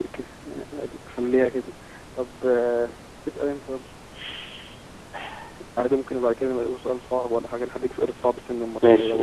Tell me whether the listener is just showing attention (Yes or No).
No